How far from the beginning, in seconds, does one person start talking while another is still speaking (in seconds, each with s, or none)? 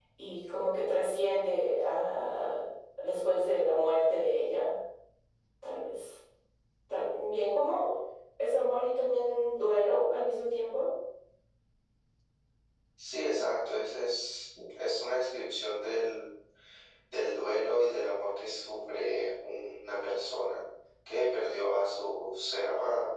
none